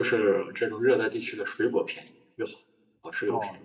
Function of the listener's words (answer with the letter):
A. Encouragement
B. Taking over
B